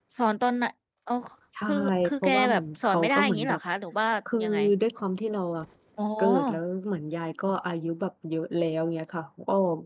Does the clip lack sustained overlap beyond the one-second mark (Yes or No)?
No